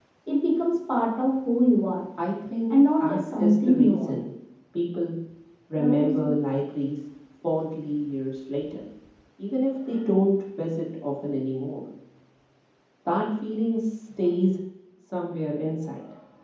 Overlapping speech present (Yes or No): Yes